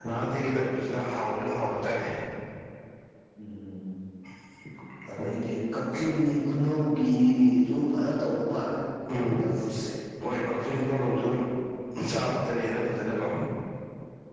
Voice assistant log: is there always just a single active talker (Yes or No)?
Yes